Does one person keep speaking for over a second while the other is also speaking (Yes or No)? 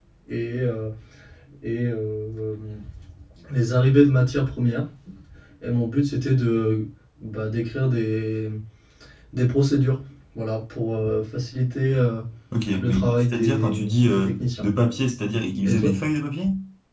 Yes